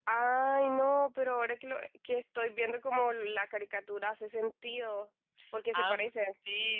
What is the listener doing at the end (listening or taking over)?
taking over